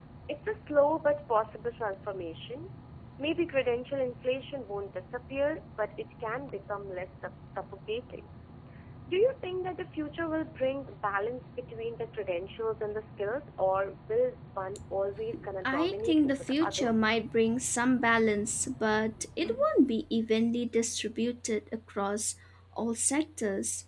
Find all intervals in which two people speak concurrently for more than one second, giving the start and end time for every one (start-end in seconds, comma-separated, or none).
15.6-16.9